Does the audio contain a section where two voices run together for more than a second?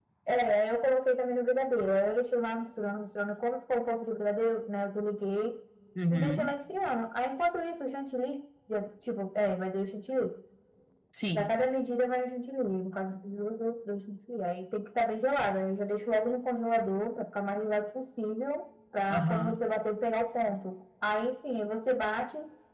No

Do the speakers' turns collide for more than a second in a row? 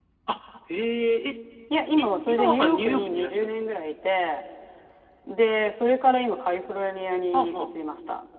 Yes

